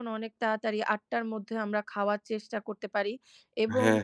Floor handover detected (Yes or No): No